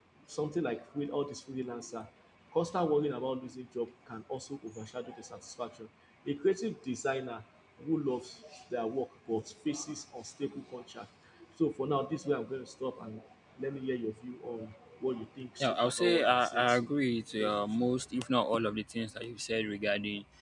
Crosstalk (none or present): present